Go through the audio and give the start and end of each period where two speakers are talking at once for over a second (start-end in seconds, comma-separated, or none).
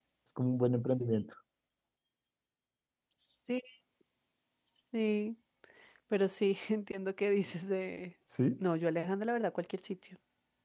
none